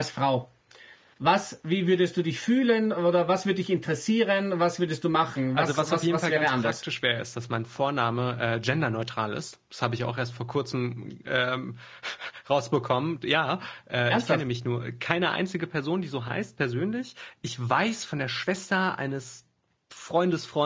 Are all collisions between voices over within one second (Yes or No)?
No